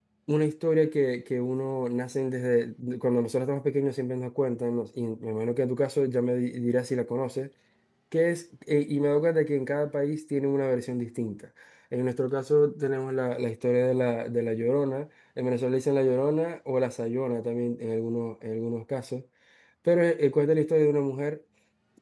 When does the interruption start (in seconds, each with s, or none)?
none